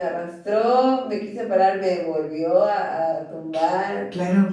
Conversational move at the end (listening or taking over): listening